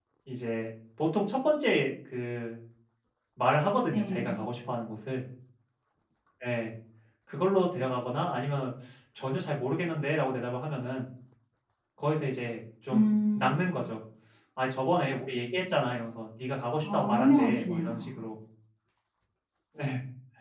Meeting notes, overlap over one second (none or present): present